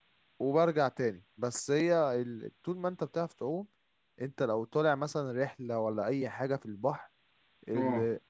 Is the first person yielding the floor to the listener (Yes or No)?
No